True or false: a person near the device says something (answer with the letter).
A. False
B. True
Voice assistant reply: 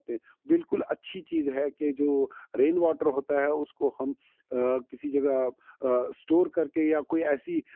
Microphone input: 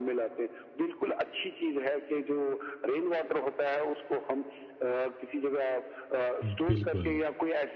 B